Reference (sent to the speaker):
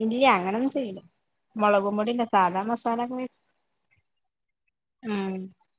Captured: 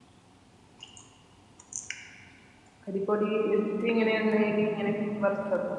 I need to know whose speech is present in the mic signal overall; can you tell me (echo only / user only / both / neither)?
user only